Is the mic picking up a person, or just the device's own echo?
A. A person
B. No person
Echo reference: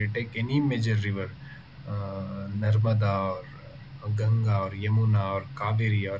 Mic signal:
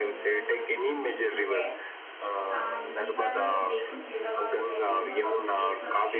A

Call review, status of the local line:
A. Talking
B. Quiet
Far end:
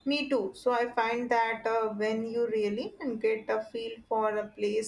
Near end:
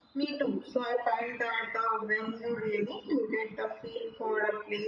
B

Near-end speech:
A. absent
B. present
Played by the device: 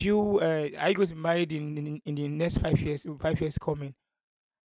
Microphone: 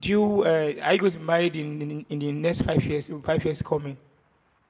A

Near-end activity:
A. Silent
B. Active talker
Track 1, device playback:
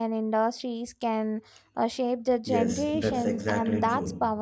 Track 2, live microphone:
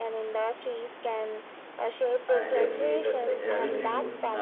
B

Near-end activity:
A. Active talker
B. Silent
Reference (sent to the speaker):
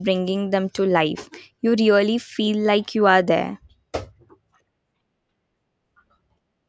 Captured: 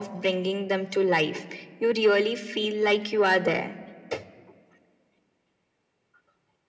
B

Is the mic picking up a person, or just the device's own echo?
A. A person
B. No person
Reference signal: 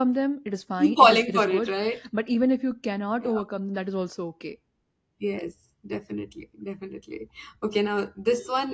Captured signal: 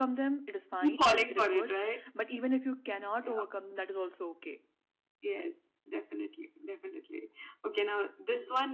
B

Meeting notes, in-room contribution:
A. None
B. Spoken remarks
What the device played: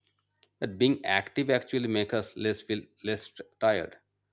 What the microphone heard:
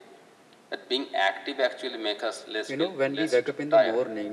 B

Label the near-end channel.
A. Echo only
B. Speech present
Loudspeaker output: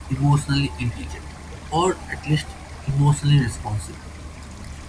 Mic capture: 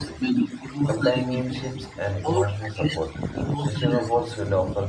B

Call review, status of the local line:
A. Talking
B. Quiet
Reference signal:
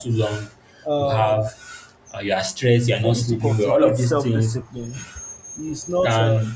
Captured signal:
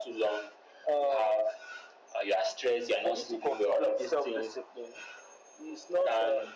B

